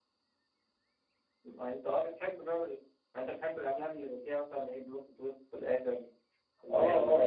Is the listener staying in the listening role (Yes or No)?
No